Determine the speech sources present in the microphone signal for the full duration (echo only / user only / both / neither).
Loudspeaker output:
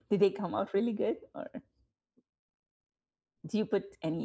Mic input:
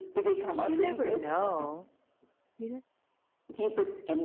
both